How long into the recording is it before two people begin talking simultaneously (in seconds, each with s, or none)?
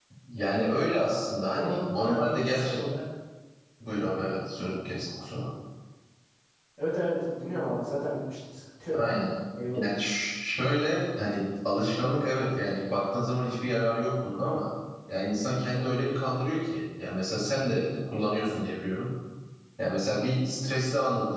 1.5 s